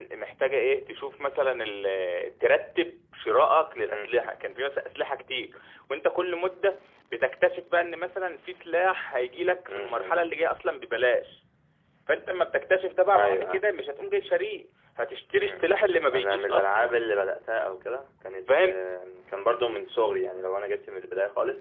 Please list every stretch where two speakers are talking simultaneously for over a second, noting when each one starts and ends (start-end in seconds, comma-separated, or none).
15.4-16.9